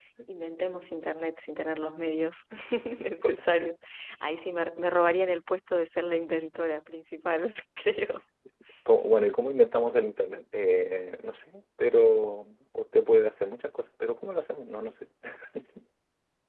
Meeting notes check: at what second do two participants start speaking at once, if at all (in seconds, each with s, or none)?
none